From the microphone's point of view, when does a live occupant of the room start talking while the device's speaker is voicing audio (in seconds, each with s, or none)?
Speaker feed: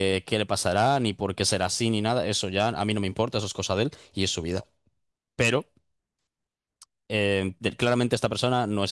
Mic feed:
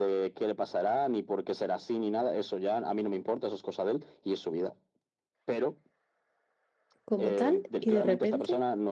7.0 s